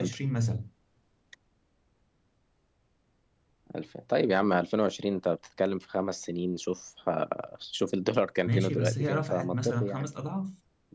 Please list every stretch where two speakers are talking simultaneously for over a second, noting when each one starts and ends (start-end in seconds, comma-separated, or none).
8.4-10.1